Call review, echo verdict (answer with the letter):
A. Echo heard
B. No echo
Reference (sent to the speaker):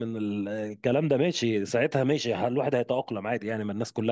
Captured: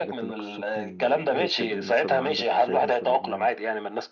A